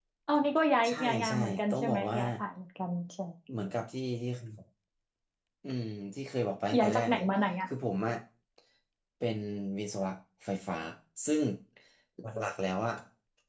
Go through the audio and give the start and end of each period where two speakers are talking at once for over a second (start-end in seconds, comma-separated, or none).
0.9-2.2